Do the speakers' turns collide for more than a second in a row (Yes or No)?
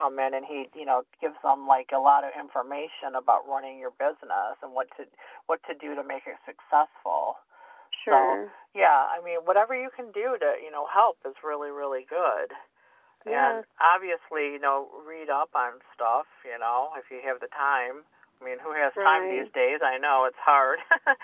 No